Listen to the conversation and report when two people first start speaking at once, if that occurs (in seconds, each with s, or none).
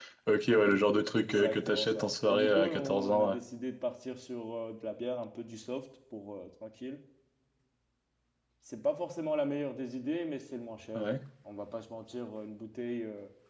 1.1 s